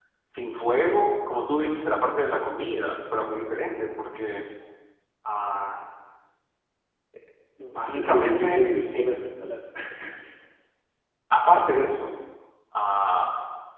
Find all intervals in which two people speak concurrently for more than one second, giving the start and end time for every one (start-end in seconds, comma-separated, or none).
7.8-9.0